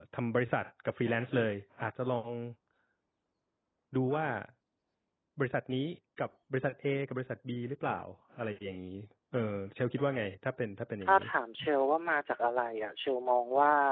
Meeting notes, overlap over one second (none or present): none